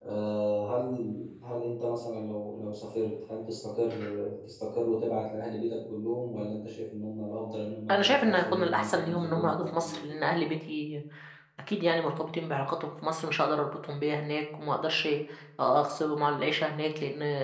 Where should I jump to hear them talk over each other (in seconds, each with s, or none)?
7.9 s